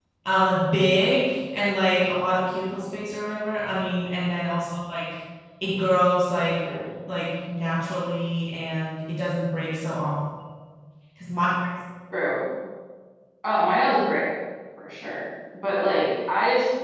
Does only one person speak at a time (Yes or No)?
Yes